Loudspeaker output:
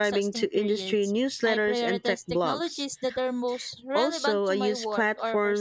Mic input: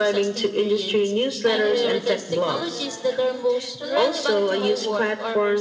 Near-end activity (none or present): present